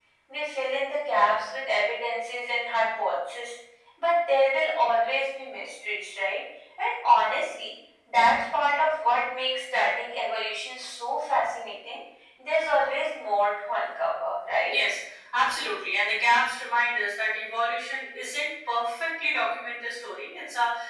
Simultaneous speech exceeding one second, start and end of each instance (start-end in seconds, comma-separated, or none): none